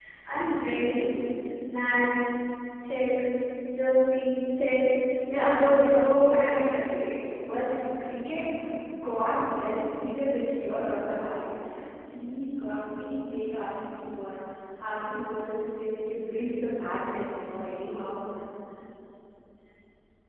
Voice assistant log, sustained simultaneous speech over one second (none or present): present